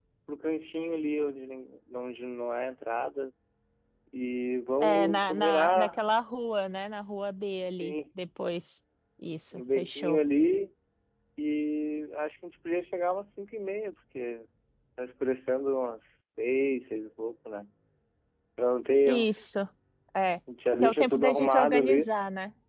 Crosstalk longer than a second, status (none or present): present